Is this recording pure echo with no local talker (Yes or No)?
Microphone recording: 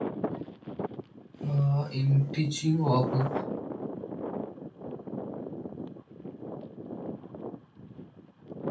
No